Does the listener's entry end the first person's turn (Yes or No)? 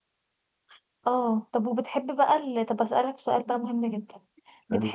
No